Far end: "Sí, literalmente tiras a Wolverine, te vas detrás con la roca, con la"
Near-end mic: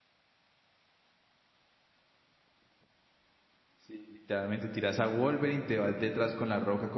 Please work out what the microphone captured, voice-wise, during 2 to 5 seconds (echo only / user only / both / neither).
echo only